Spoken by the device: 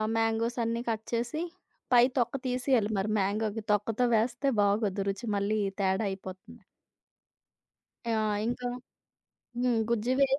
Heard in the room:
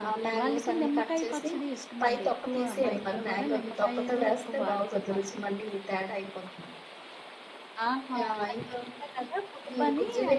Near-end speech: present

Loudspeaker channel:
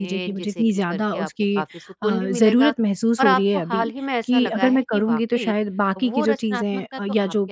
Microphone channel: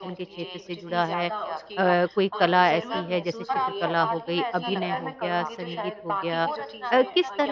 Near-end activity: present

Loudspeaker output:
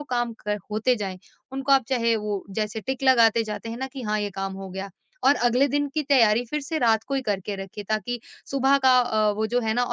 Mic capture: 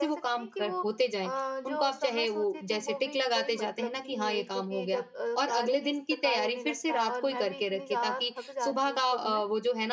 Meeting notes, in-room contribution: present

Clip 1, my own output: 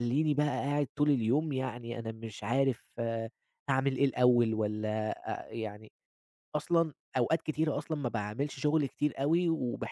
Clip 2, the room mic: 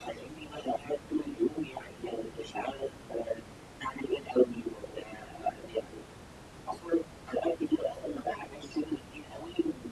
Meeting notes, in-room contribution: none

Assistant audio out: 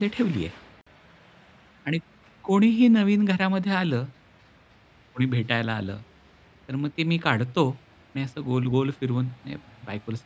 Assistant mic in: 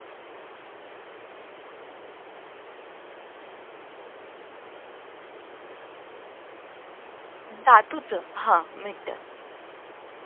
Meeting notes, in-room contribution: present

